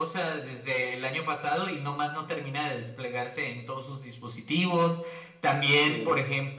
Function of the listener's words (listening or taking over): listening